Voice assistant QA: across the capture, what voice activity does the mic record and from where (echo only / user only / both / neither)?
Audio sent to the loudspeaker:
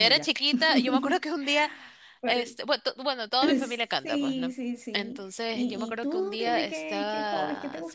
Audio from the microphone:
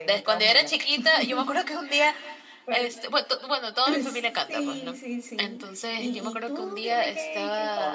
echo only